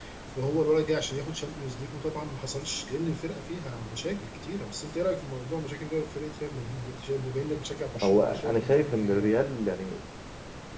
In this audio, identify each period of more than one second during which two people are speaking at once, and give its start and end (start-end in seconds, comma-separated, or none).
8.0-9.3